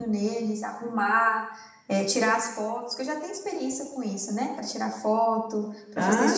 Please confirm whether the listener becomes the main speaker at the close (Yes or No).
Yes